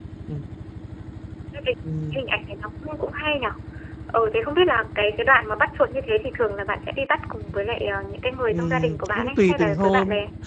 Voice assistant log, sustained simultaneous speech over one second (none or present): present